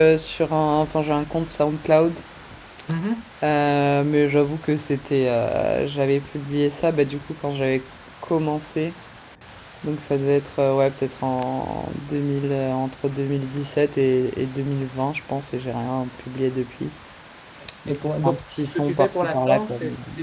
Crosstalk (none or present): present